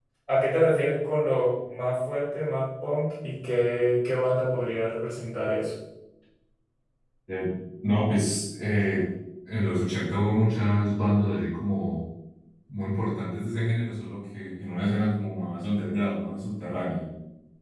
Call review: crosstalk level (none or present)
none